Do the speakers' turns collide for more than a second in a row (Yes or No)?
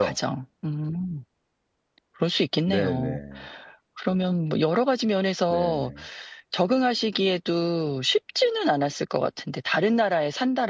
No